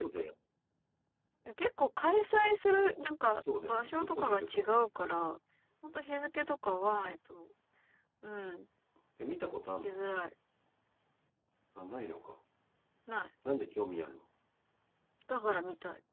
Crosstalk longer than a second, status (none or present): present